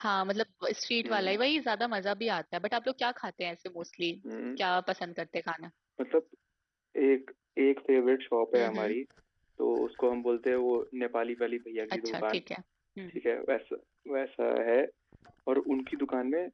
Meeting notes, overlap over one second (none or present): none